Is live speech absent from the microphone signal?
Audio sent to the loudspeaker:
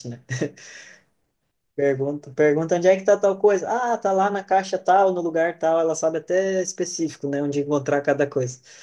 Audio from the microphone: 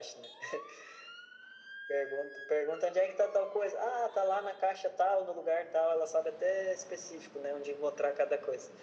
Yes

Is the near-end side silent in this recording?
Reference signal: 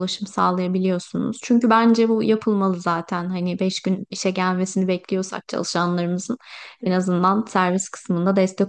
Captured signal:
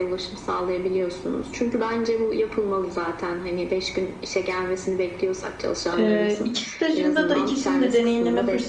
No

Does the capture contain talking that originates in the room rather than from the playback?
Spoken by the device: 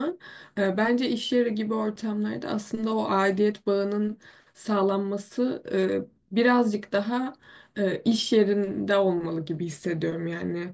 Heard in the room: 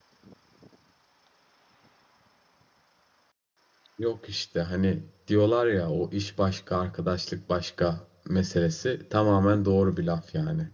Yes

